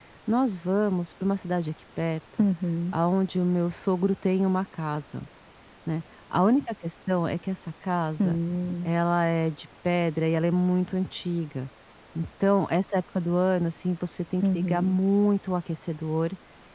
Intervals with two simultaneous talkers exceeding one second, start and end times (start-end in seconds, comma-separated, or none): none